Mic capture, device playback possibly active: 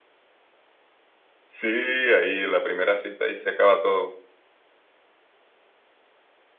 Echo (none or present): none